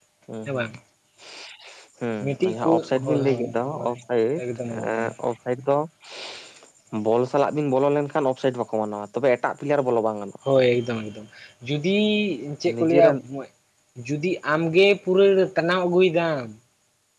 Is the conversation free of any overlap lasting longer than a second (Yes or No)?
No